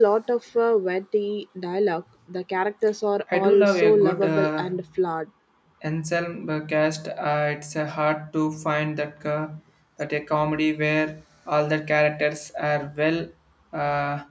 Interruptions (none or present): present